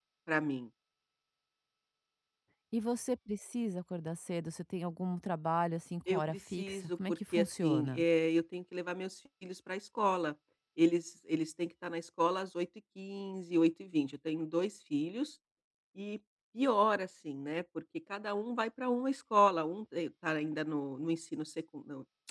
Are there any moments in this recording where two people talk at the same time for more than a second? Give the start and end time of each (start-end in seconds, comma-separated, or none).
6.1-8.0